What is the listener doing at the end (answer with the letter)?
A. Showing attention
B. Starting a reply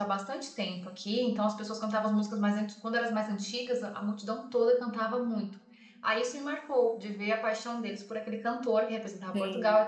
A